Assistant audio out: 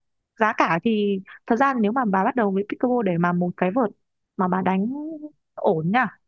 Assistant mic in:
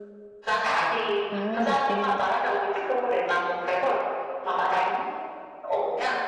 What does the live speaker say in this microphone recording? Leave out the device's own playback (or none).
ừ ừ